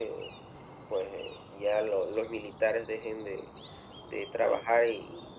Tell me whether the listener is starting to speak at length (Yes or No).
No